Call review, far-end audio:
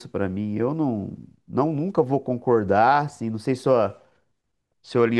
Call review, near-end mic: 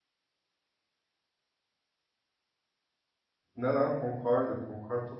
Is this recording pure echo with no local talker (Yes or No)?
No